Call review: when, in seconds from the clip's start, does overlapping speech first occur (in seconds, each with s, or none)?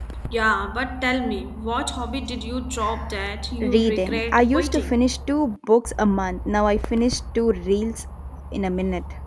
3.6 s